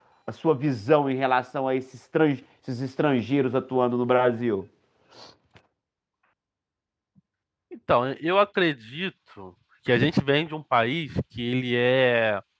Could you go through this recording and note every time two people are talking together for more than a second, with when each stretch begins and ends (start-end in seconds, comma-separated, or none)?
none